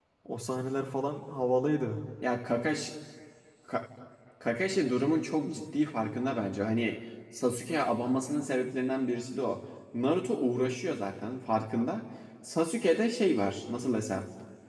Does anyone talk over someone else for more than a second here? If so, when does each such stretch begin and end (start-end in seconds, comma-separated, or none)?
none